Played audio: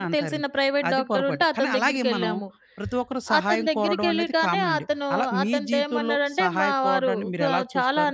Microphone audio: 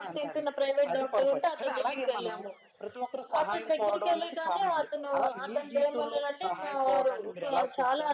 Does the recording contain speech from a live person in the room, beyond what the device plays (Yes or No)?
No